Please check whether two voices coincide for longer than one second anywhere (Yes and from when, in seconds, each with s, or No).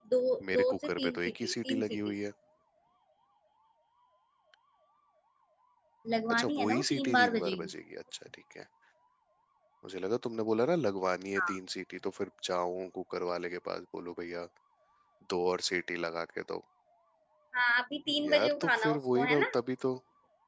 Yes, from 0.5 s